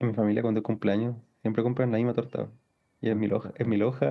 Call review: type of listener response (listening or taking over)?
listening